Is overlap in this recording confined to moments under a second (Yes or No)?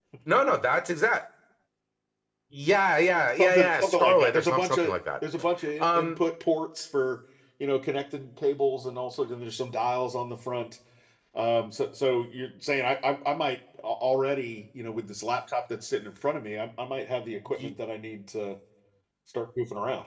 No